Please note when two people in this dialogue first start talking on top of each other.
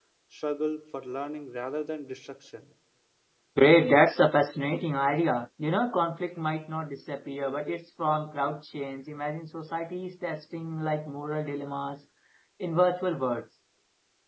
none

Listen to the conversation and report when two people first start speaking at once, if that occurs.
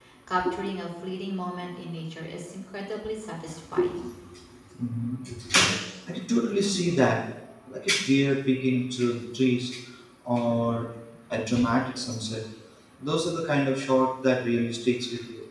none

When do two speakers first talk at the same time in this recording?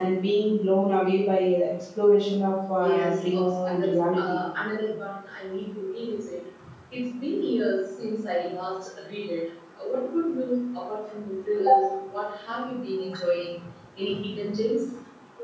2.8 s

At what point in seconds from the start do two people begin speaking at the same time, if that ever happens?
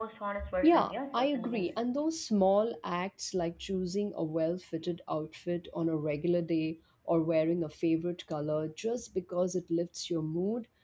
0.6 s

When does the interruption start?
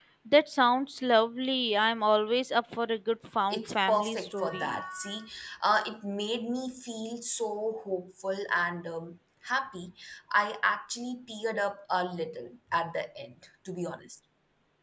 3.5 s

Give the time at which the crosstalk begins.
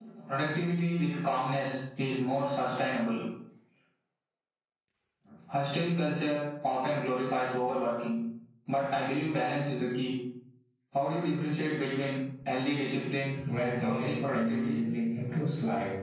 13.4 s

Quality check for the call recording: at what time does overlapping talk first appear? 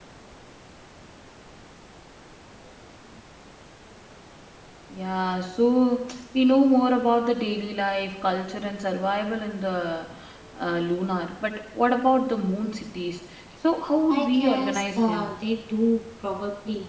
14.1 s

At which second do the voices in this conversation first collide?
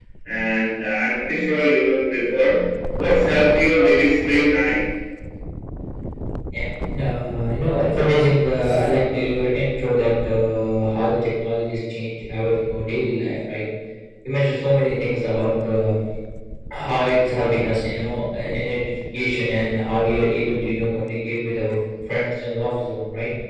none

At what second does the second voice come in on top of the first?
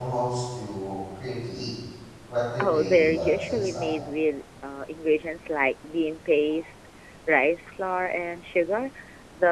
2.6 s

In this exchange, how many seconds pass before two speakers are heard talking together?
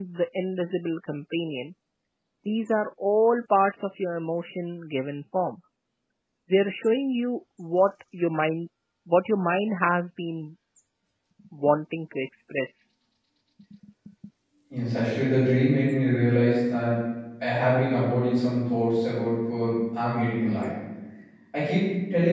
none

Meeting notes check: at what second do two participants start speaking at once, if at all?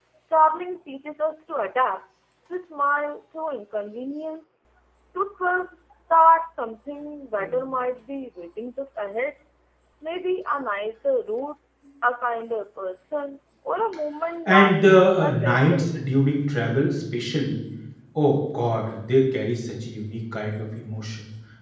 14.5 s

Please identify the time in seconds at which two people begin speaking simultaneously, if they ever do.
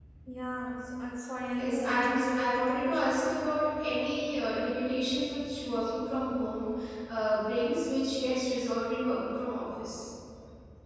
1.6 s

